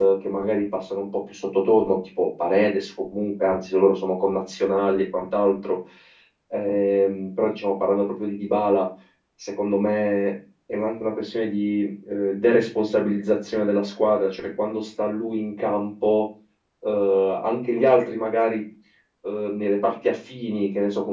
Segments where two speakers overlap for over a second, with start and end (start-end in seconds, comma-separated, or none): none